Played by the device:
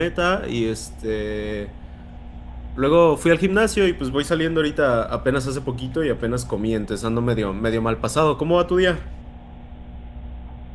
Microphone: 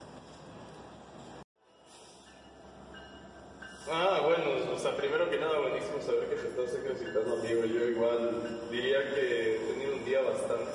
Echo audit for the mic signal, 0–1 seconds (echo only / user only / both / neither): neither